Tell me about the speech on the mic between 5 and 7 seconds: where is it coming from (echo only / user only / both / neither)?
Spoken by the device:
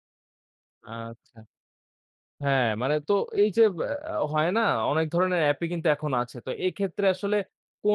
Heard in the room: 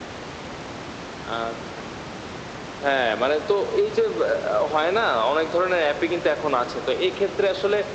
echo only